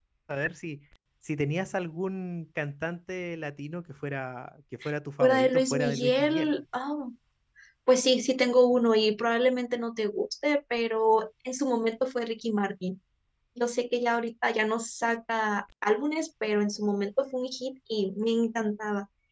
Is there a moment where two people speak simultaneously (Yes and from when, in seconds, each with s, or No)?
Yes, from 5.2 s